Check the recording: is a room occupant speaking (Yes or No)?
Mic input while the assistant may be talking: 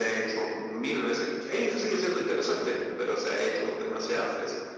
No